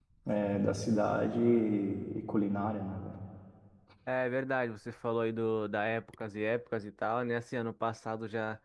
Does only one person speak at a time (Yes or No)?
Yes